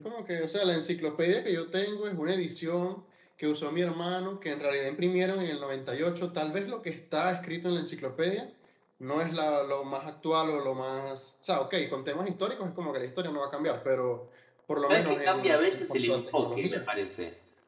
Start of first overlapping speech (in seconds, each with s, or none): 14.9 s